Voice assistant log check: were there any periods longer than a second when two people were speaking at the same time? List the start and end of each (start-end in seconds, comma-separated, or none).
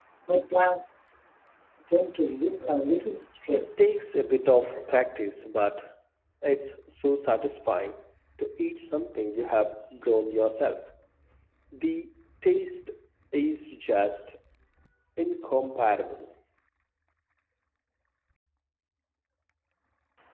none